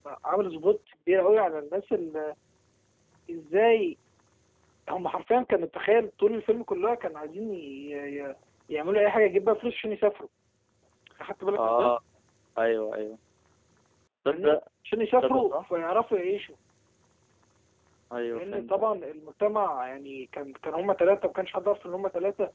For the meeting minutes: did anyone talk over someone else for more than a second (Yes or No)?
No